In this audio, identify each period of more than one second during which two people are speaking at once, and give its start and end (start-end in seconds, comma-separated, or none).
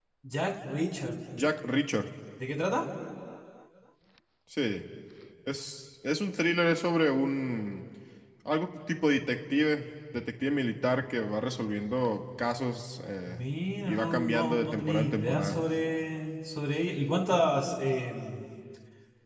13.9-15.6